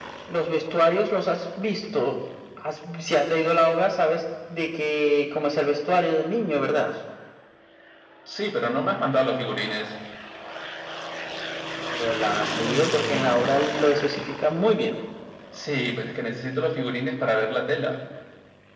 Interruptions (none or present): none